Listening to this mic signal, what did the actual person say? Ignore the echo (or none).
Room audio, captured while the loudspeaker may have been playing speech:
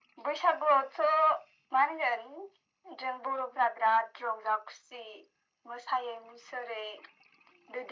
none